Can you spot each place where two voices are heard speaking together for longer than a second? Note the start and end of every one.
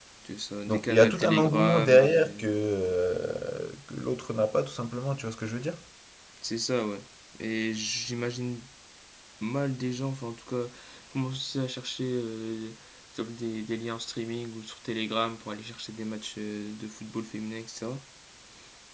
0.7-2.3

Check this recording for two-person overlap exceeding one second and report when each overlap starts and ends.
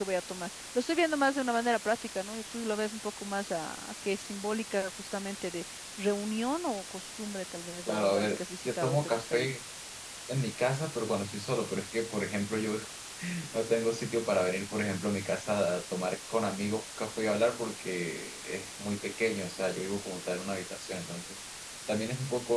7.9-9.5

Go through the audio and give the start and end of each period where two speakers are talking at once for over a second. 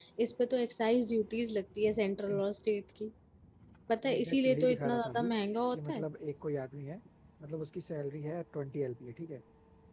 4.0-5.3

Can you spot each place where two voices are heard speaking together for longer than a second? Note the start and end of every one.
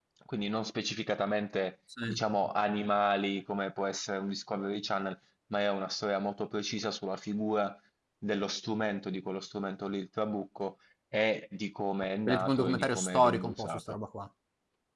12.3-13.8

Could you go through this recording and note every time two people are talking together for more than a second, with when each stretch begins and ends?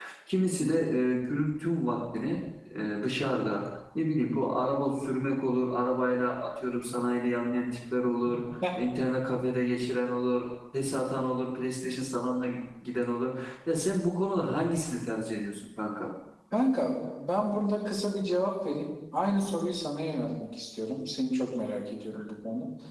none

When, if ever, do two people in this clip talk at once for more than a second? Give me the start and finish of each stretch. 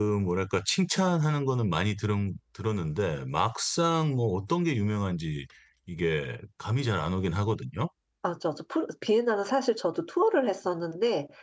none

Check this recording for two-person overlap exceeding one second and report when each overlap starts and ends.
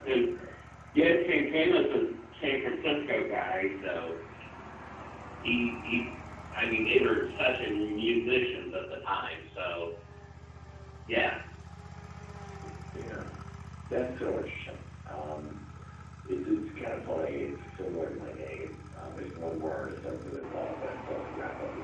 none

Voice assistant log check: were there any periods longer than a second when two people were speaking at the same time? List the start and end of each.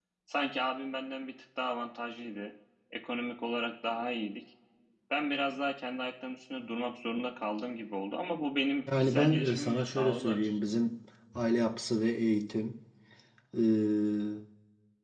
9.0-10.8

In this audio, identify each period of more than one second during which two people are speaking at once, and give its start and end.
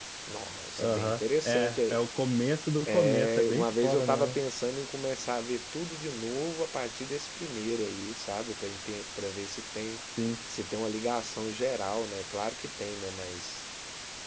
0.8-2.0, 2.9-4.4

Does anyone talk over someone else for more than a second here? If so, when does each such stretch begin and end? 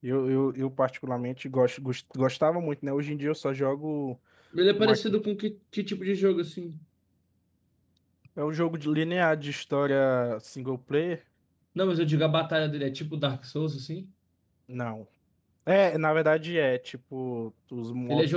none

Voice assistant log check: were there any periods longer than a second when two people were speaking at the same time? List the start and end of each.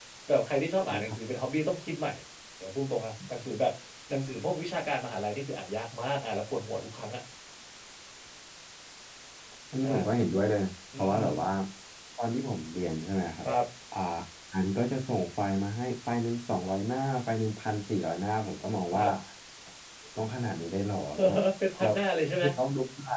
none

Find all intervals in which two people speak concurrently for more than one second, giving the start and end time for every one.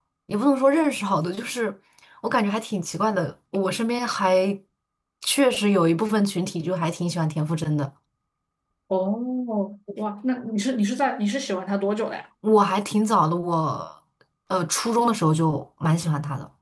none

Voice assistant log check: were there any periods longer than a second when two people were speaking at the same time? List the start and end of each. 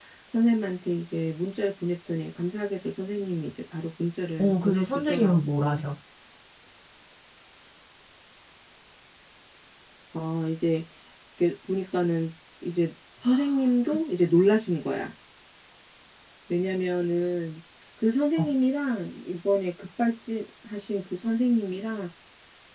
4.4-5.9

